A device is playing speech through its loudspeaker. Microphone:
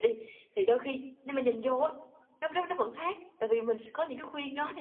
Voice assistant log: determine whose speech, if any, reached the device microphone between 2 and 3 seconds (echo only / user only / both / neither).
echo only